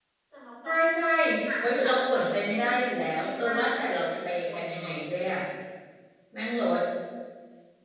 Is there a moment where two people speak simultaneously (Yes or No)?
Yes